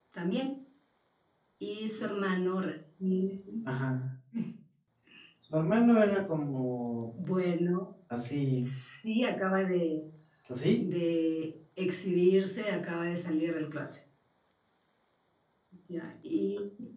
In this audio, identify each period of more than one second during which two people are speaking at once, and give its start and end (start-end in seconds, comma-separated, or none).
none